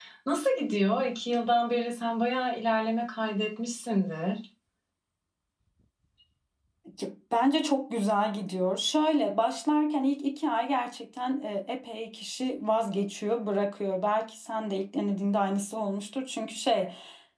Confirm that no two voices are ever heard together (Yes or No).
Yes